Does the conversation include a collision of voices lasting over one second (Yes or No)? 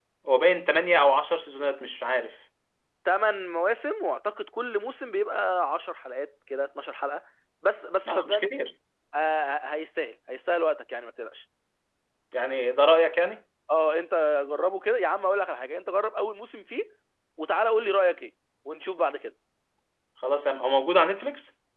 No